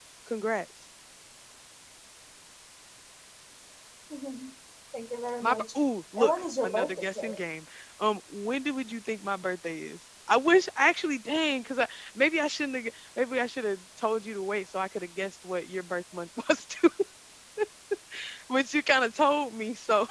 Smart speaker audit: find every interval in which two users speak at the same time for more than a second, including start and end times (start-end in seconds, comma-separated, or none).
6.2-7.4